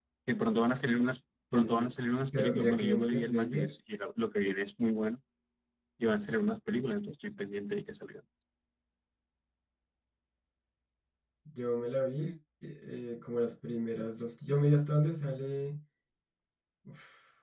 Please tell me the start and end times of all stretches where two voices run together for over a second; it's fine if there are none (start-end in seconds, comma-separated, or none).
2.3-3.7